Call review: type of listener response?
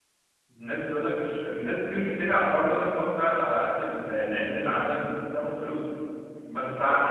listening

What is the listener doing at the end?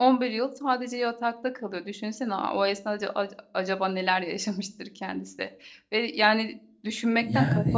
listening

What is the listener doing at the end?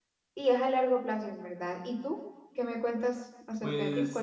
taking over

